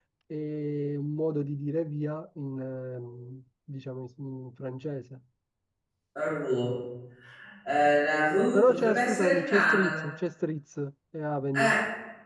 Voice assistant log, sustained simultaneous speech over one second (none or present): present